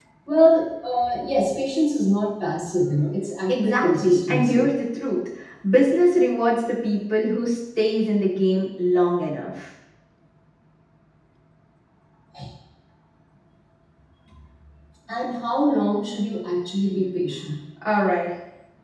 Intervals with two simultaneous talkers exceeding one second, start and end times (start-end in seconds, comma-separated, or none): 3.5-4.7